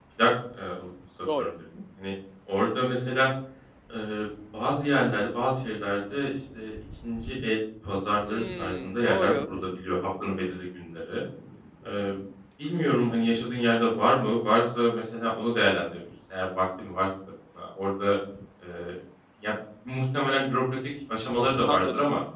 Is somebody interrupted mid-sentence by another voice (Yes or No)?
Yes